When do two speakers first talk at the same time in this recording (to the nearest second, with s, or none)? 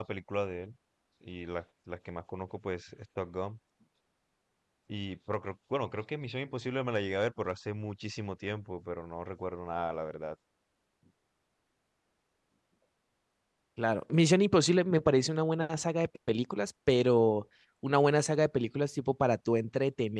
none